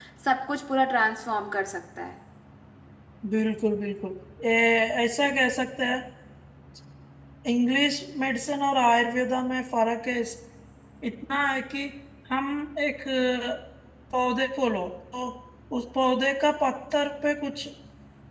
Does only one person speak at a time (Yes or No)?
Yes